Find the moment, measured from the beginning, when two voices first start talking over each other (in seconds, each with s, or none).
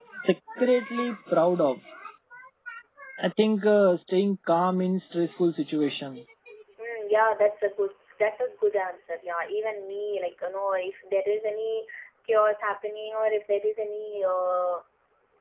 none